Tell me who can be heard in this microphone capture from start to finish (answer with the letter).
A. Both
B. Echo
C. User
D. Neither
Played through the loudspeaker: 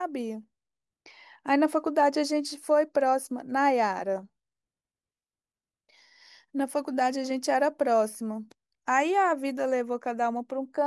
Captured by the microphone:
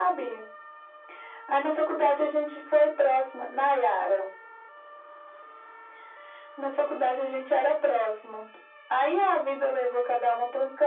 B